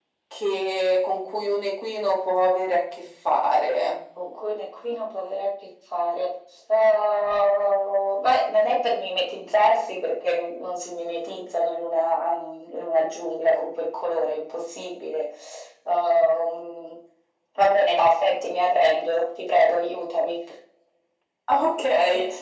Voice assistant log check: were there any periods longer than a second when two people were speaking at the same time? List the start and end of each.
none

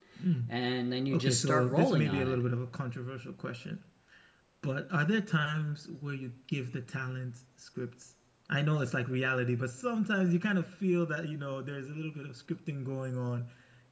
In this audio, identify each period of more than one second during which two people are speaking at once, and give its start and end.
1.1-2.4

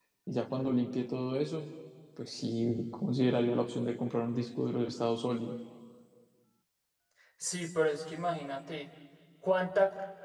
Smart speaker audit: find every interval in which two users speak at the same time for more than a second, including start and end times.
none

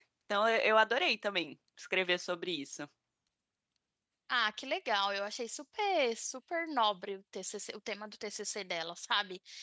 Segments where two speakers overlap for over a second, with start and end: none

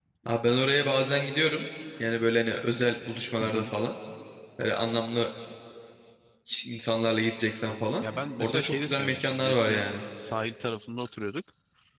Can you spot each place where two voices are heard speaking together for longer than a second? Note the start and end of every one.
8.4-9.9

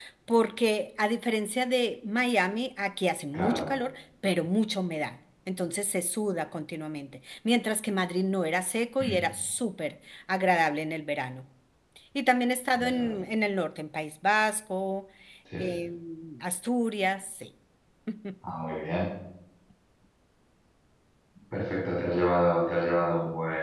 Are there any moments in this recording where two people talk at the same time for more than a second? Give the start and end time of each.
none

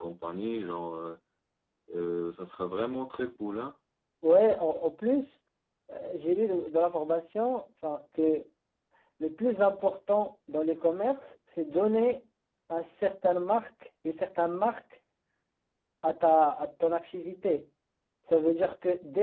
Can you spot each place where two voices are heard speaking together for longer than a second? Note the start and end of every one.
none

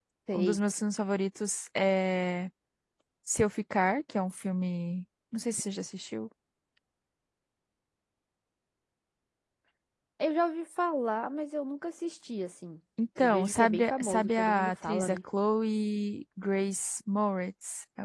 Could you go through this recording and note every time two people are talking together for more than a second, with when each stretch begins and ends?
13.2-15.2

